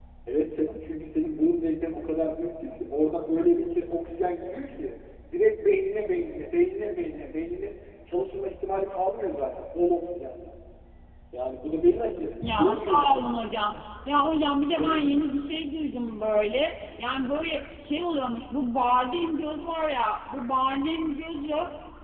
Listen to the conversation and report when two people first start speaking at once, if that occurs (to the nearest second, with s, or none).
12 s